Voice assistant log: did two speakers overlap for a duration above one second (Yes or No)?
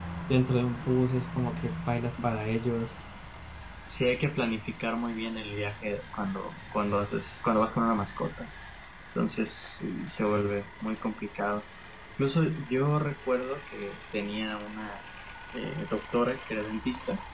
No